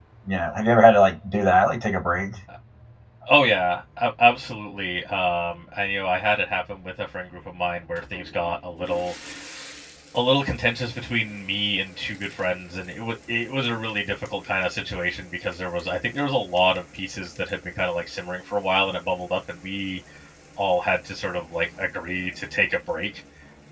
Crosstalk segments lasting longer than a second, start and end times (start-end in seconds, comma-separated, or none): none